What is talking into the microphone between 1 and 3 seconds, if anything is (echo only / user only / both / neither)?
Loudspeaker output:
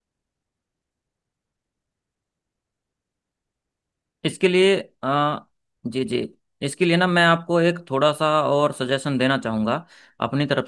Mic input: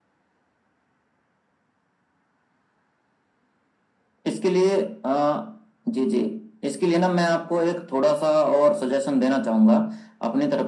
neither